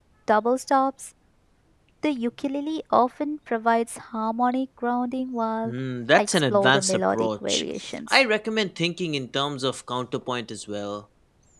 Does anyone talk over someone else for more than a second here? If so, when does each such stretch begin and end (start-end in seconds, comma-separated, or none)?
6.1-7.6